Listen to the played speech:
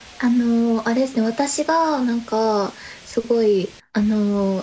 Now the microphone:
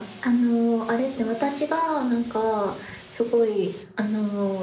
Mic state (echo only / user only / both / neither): echo only